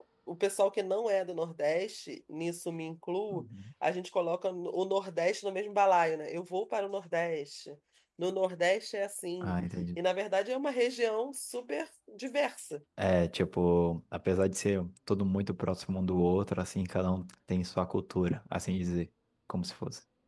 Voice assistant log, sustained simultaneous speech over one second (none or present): none